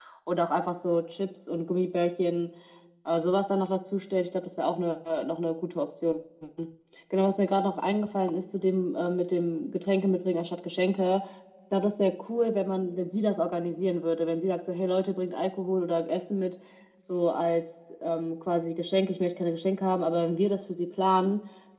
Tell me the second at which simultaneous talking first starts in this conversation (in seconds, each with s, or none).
none